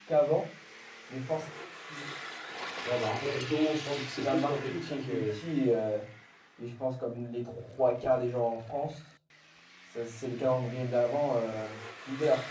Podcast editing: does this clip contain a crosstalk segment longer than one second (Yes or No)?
Yes